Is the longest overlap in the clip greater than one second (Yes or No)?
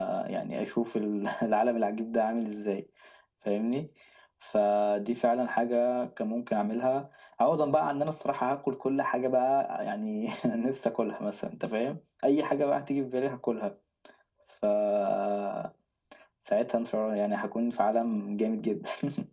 No